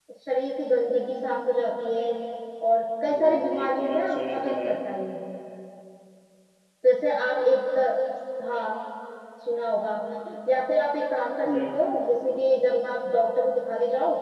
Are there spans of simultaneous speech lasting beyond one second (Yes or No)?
Yes